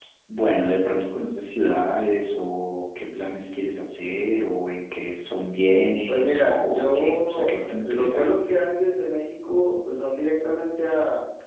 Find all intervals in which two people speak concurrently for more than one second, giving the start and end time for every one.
6.1-8.3

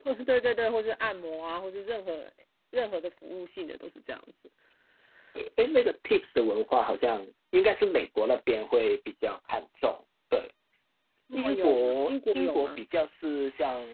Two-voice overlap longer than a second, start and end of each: 11.3-12.8

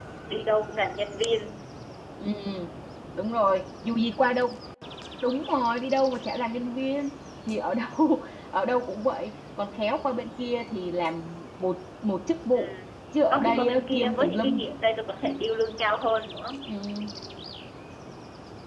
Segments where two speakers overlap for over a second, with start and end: 13.3-14.7

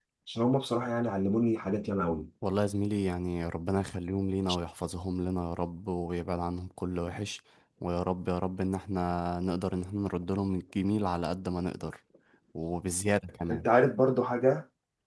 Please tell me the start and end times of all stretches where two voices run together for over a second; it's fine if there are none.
none

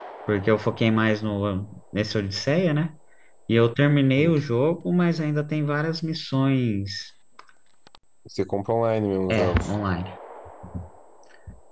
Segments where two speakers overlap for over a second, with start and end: none

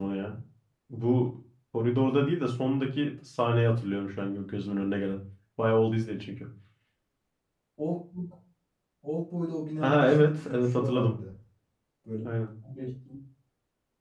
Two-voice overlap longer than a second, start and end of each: 9.8-11.2

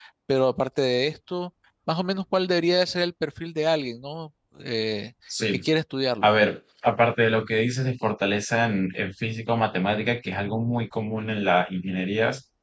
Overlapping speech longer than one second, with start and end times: none

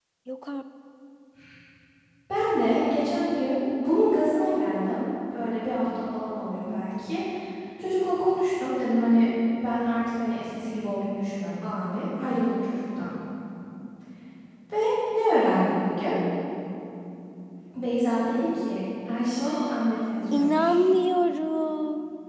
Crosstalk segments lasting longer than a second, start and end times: 19.4-20.8

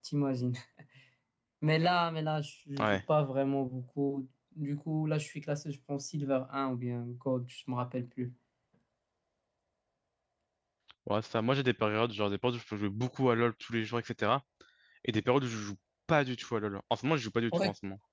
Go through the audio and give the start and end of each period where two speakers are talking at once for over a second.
none

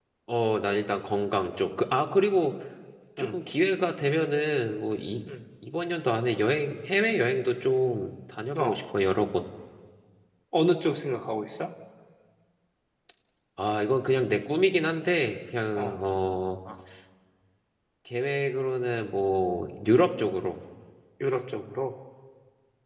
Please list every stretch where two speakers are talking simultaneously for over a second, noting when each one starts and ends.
none

